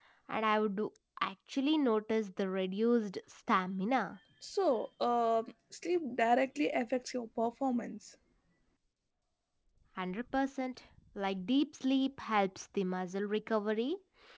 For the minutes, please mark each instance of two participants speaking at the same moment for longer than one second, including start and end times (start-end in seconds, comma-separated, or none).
none